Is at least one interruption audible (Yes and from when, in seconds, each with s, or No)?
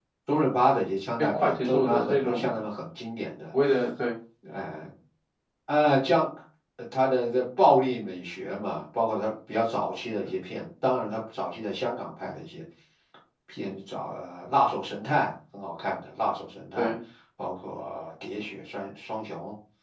Yes, from 1.2 s